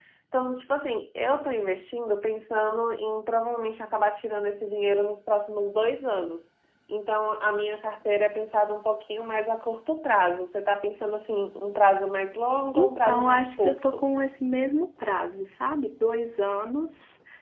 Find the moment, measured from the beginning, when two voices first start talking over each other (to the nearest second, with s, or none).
13 s